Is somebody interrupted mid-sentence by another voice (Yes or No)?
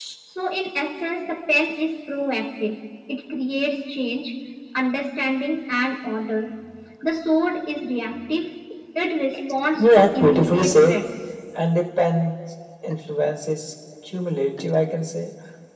Yes